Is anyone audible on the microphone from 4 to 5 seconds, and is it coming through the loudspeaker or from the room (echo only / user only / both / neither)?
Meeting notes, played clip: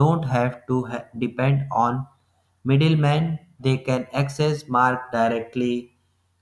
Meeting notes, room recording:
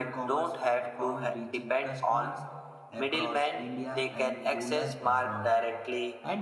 both